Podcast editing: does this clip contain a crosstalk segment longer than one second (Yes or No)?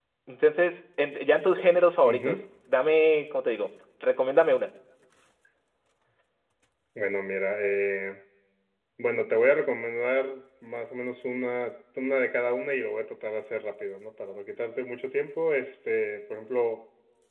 No